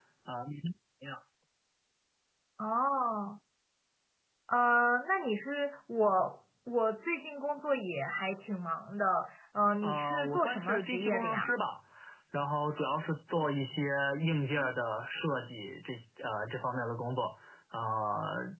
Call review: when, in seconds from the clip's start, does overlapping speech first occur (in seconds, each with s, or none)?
9.8 s